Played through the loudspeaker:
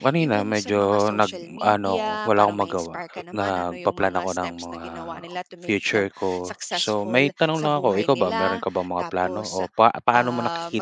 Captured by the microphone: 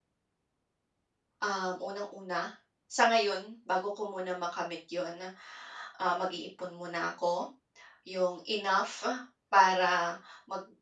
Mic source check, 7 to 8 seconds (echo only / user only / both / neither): user only